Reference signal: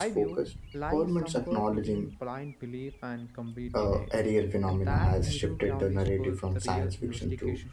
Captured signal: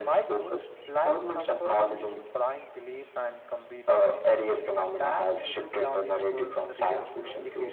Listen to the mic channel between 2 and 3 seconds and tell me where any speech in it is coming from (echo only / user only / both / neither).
echo only